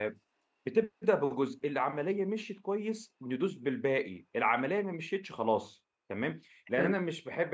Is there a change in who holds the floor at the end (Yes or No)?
No